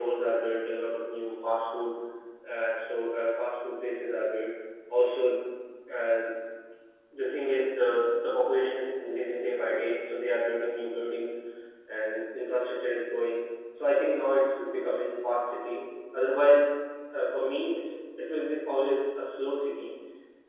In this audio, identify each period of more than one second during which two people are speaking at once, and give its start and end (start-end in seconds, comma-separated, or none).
none